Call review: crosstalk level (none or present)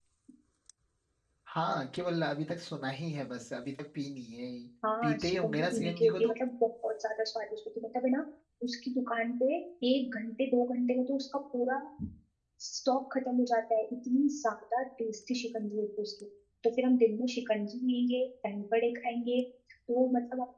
present